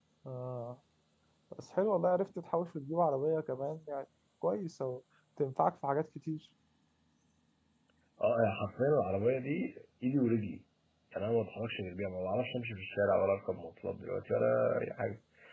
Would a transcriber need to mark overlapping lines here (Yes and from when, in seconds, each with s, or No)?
No